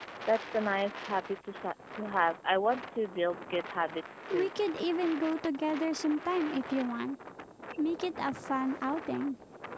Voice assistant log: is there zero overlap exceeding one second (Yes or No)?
Yes